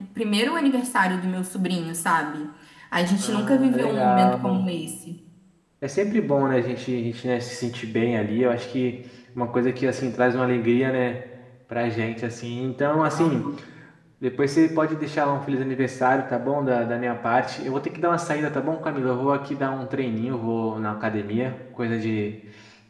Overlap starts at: 3.2 s

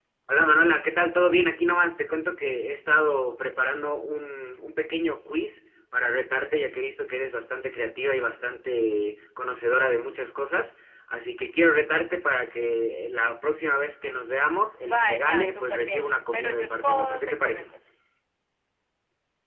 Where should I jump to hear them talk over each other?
14.8 s

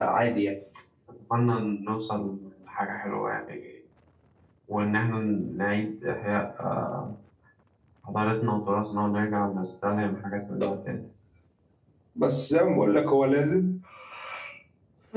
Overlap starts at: none

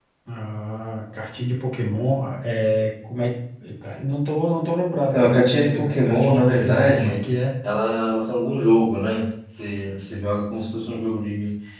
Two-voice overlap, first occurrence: 5.1 s

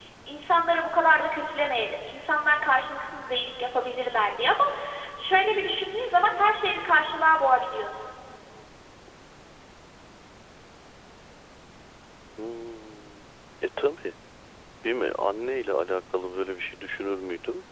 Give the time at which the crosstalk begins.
none

